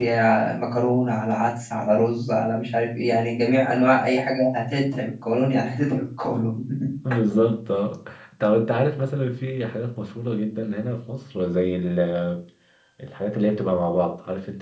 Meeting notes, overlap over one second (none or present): none